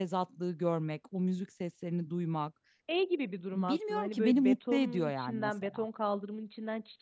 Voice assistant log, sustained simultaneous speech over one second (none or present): present